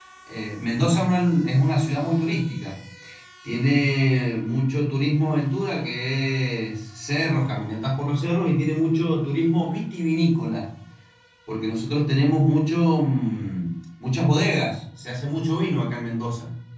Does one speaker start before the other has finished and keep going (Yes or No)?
No